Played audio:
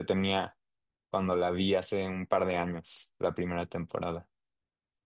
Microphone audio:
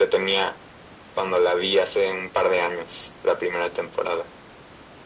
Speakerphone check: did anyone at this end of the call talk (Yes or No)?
No